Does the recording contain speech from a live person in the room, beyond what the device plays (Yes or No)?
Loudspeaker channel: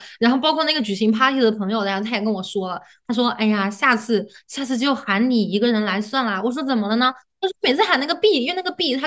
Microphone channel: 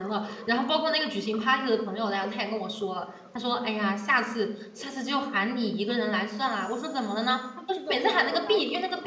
Yes